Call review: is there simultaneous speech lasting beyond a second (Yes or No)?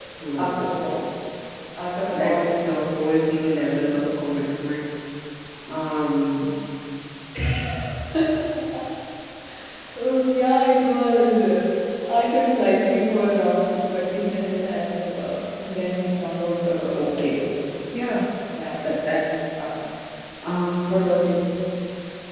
Yes